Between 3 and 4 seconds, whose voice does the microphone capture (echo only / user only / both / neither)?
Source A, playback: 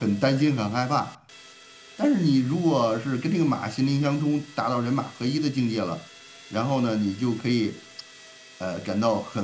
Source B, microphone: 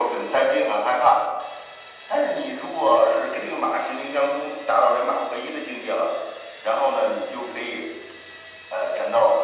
echo only